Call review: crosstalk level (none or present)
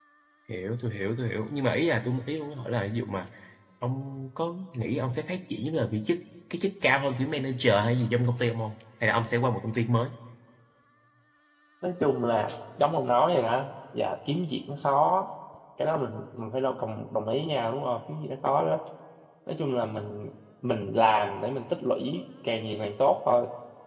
none